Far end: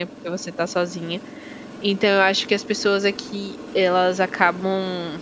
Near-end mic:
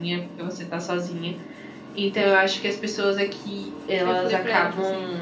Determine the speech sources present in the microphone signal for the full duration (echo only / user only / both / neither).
both